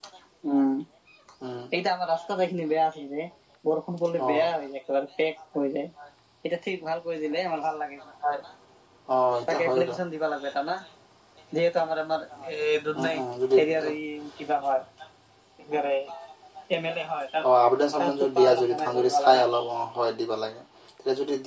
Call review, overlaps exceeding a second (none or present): present